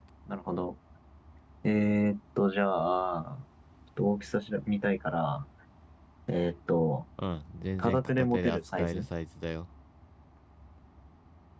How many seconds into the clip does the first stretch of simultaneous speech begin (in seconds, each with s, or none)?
7.8 s